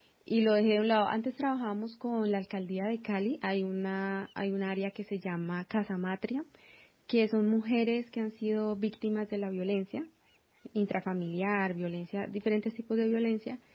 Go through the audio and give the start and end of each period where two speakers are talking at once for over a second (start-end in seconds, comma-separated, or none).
none